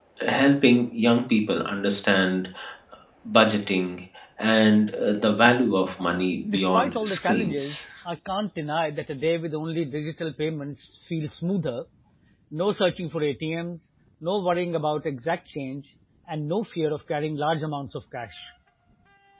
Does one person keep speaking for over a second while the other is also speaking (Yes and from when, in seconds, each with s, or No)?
Yes, from 6.4 s